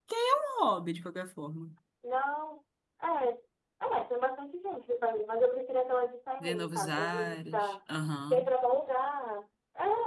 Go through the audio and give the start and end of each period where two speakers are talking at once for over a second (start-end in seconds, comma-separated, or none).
6.4-7.7